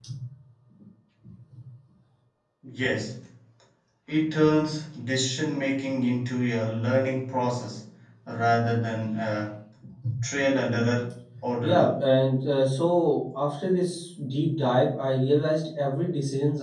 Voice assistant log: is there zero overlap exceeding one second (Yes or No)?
Yes